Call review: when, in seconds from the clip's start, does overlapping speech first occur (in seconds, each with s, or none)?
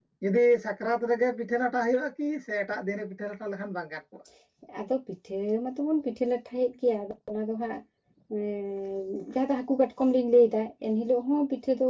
none